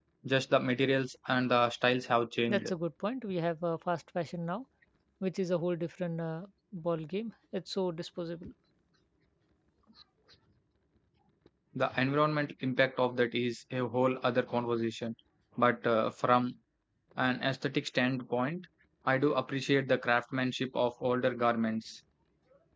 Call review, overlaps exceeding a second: none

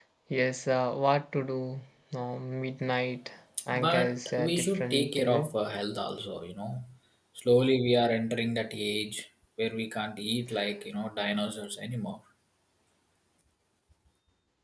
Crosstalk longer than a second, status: present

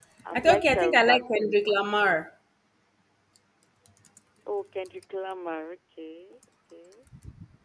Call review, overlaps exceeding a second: present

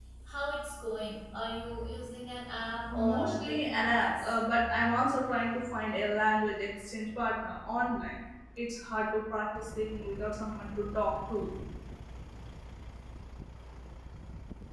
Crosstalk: present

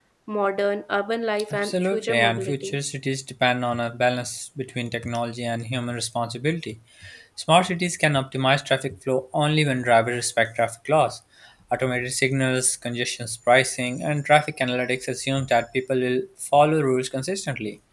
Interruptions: present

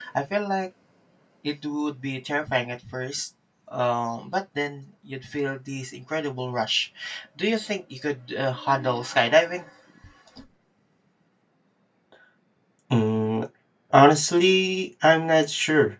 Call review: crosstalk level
none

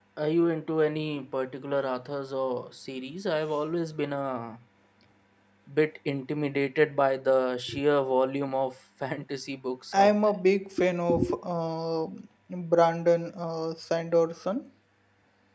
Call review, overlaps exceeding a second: none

